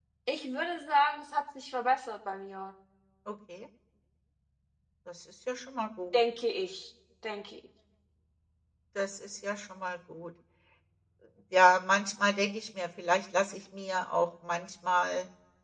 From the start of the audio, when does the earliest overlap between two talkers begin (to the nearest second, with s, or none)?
none